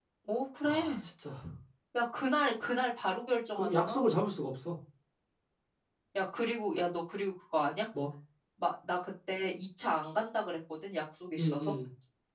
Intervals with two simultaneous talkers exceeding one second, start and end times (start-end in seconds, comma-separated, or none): none